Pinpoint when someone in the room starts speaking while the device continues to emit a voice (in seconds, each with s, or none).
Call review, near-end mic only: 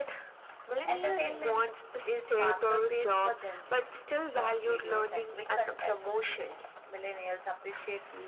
none